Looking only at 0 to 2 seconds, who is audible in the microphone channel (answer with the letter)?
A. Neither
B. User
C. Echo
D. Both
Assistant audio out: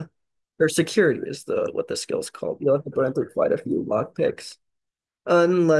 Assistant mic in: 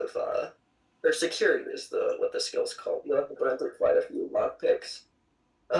C